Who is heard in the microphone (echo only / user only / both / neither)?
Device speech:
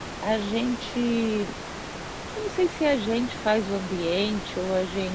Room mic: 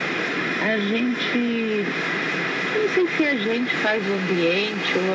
echo only